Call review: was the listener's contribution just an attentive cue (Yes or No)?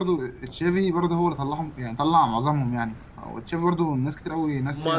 No